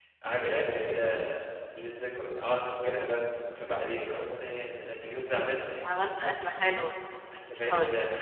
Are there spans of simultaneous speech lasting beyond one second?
No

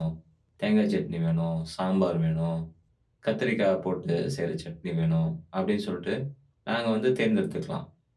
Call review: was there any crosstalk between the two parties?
No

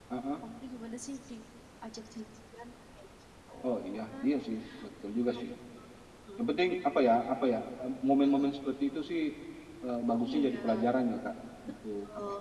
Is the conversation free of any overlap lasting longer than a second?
Yes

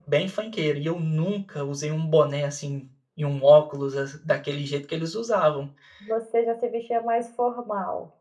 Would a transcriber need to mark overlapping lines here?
No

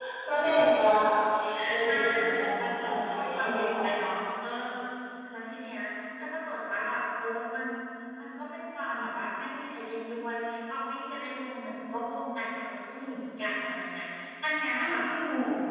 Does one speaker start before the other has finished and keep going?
Yes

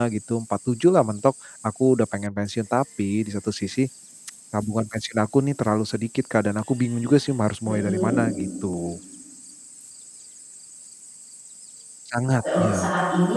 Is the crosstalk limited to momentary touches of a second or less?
Yes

